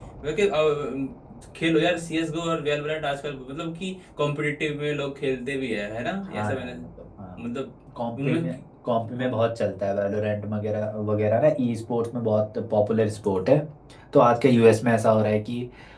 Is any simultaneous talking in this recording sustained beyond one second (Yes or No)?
No